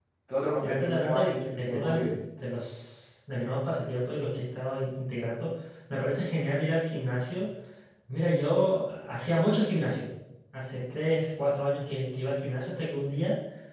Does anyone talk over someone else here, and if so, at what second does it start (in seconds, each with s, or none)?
0.6 s